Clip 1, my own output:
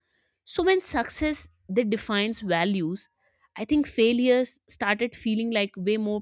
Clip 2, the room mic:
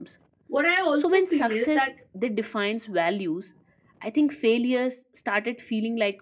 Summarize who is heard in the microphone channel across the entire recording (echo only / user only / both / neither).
both